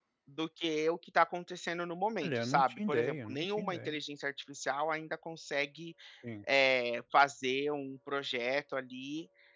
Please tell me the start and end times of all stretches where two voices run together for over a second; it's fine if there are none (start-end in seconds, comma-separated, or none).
2.2-4.0